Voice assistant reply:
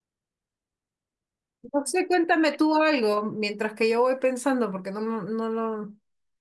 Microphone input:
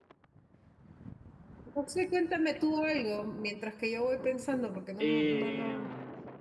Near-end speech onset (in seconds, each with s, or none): 5.0 s